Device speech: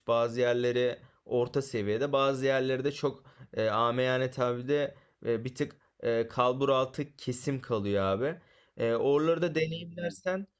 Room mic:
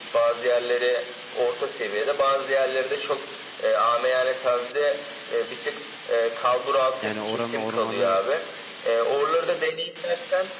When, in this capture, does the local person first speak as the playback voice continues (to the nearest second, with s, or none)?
7 s